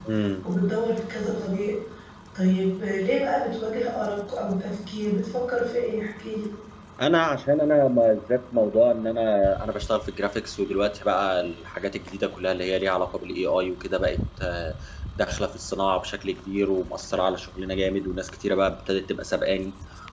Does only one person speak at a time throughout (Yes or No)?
Yes